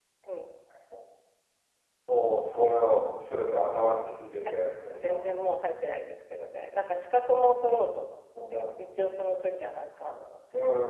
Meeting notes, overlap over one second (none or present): none